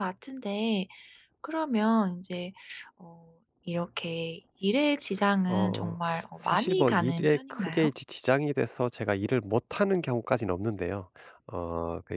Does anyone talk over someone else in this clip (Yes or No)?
Yes